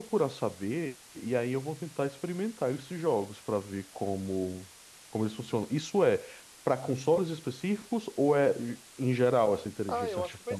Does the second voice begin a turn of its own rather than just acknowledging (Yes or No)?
Yes